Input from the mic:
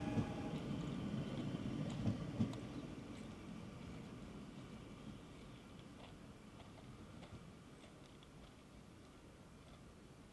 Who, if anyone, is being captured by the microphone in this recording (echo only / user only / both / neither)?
neither